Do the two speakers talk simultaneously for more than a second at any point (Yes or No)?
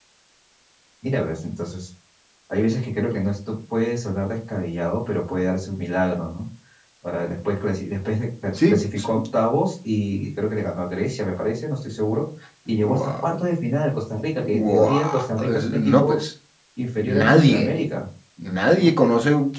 Yes